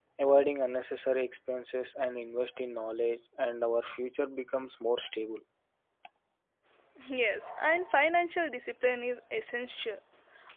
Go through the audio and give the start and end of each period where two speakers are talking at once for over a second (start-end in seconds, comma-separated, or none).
none